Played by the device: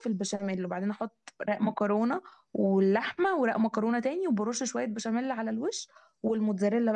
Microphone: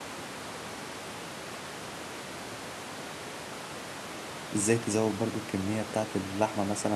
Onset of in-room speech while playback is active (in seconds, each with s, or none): 4.5 s